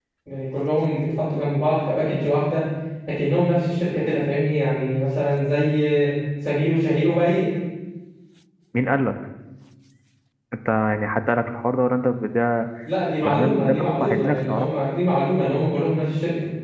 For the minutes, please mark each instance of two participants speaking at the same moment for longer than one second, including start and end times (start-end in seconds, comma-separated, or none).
13.2-14.7